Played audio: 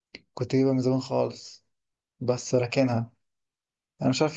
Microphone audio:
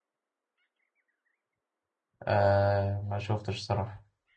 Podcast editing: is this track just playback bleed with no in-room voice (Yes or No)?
No